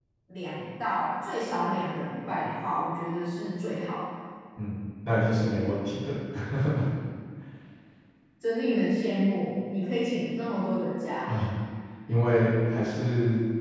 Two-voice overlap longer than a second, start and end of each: none

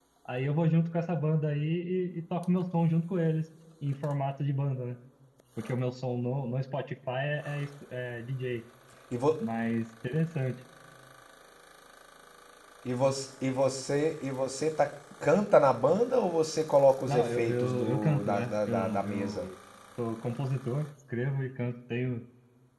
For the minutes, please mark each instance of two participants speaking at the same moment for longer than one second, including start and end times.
17.1-19.5

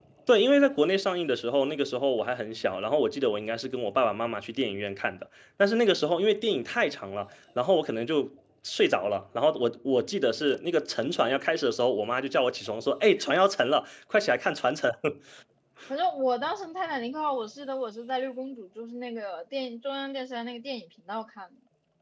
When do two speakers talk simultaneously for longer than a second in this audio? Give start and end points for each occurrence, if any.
none

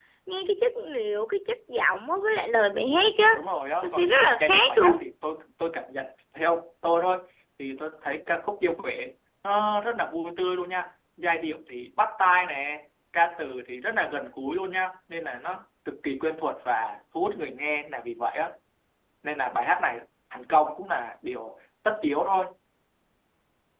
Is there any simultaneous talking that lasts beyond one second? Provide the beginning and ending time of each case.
3.8-5.1

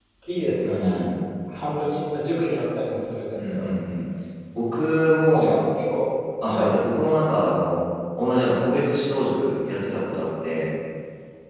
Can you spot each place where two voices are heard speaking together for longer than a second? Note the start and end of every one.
none

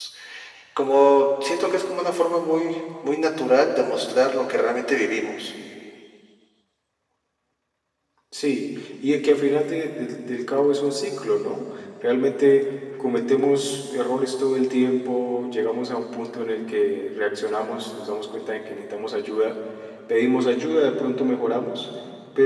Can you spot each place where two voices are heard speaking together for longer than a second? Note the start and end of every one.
none

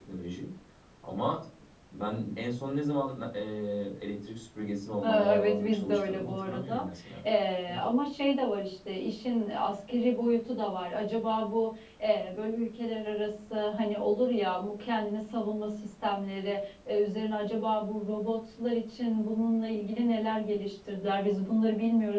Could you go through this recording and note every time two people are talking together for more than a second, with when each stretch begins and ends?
5.0-6.8

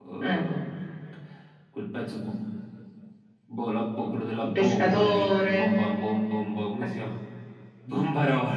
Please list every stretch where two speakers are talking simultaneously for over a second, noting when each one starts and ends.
4.4-5.8

